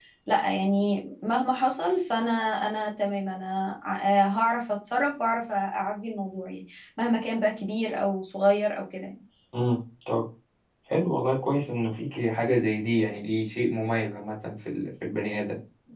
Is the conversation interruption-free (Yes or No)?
Yes